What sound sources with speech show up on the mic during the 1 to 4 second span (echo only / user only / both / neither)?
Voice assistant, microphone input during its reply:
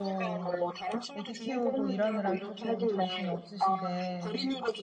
both